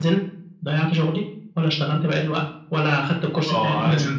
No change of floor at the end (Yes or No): No